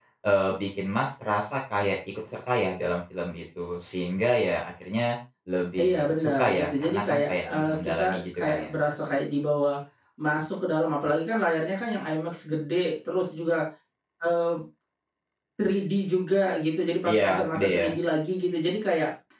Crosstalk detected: Yes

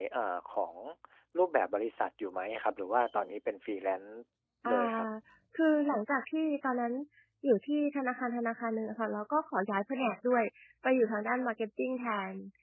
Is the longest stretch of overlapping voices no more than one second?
Yes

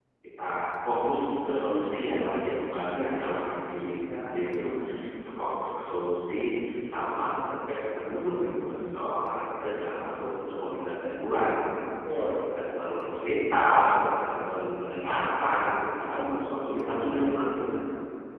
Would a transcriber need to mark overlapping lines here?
Yes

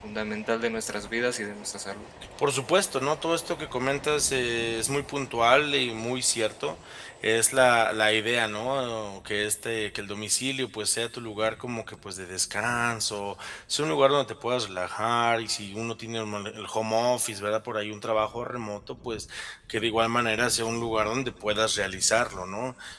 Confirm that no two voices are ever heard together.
Yes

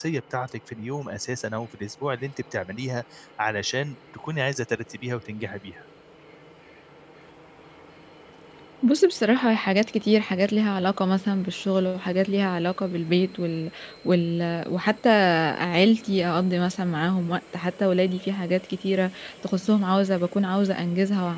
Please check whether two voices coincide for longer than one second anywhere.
No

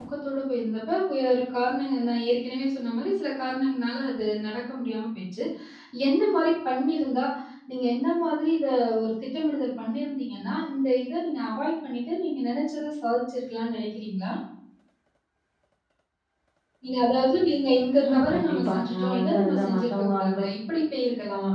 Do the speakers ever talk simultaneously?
Yes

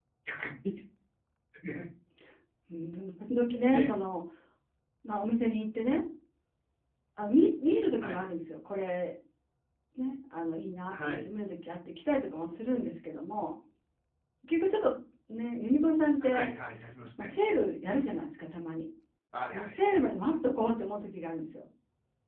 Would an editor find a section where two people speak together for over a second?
No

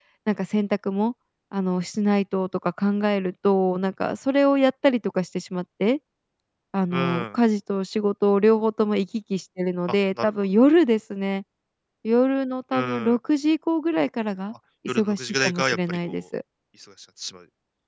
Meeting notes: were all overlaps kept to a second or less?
No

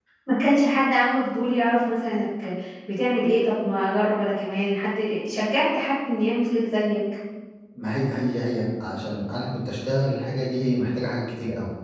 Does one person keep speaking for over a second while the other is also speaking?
No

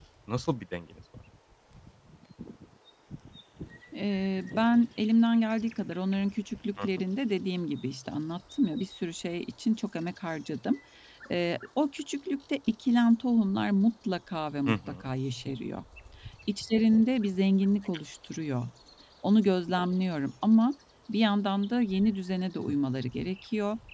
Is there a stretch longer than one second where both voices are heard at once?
No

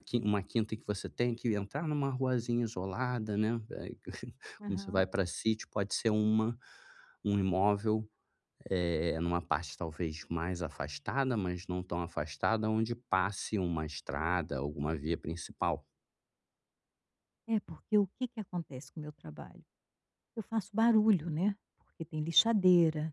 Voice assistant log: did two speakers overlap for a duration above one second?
No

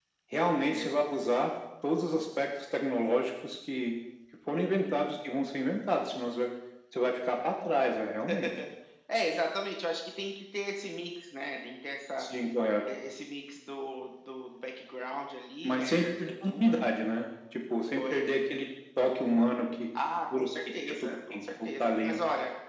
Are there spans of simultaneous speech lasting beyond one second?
Yes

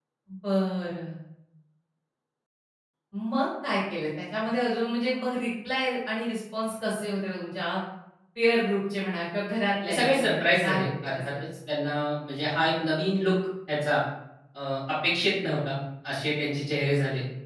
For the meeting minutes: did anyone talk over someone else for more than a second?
Yes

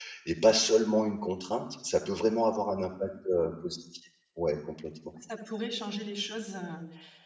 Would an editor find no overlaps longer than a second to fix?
Yes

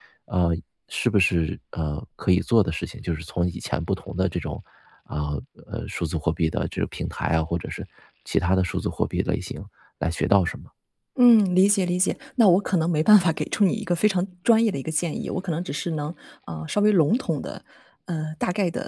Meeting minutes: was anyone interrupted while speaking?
No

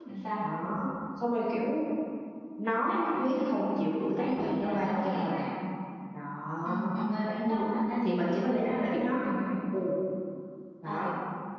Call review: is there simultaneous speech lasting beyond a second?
Yes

